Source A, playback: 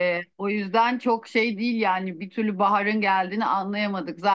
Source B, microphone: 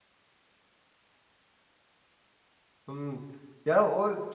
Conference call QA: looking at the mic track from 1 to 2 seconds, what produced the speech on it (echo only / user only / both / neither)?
neither